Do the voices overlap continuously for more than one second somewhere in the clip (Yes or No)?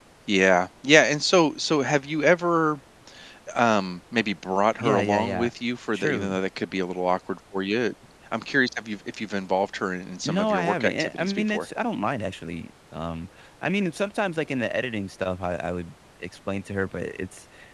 Yes